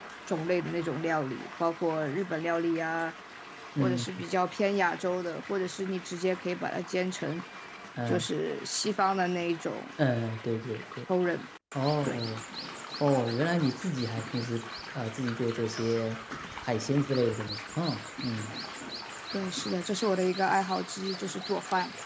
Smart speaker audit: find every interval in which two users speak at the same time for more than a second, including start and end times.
none

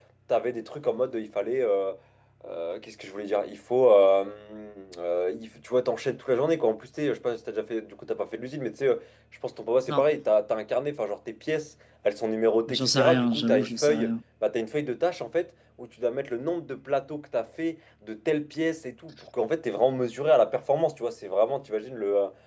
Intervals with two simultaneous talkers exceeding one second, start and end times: 12.7-14.1

